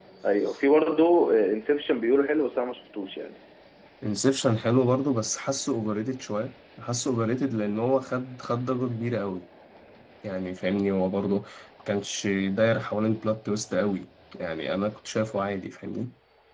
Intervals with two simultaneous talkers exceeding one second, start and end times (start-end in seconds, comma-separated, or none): none